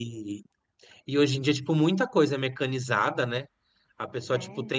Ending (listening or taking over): listening